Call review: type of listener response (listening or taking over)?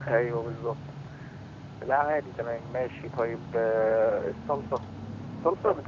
listening